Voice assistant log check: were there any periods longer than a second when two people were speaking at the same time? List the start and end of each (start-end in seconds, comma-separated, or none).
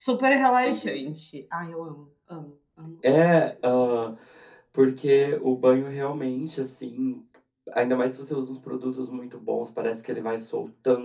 none